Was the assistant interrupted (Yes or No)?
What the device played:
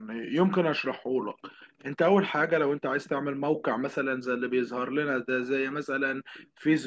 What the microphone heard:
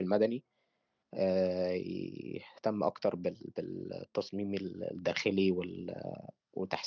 Yes